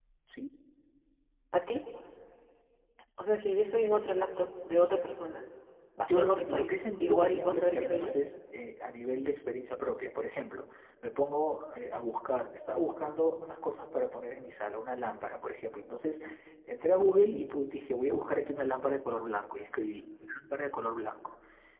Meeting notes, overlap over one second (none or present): present